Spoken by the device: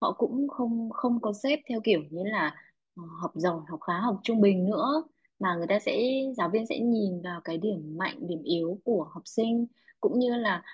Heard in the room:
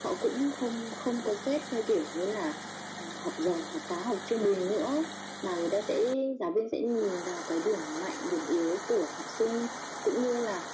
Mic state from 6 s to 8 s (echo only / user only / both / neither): echo only